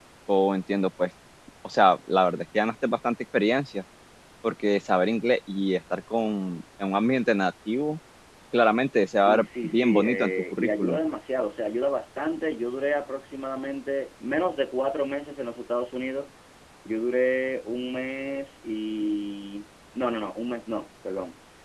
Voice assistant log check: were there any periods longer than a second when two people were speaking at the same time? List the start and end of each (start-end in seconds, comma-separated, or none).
9.2-11.0